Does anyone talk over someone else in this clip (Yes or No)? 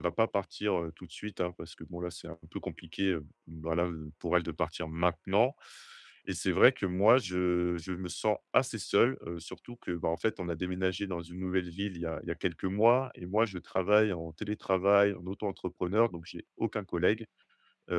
No